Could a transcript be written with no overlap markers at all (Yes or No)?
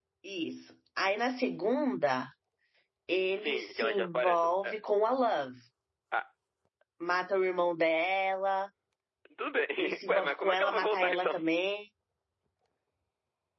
No